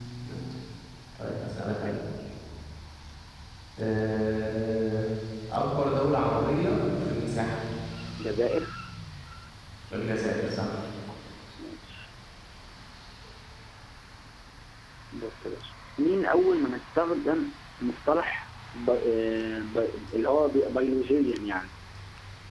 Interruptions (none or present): none